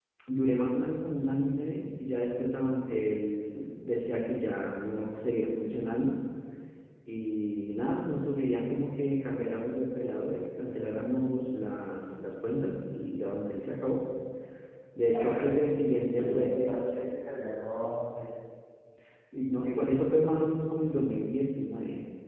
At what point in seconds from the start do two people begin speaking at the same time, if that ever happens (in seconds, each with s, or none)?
15.1 s